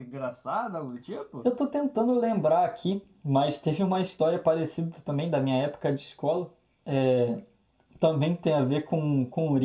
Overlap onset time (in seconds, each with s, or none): none